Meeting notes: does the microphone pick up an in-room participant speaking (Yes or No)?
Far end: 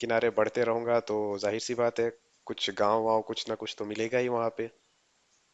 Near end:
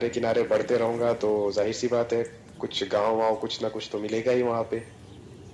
No